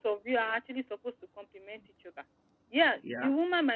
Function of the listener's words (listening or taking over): listening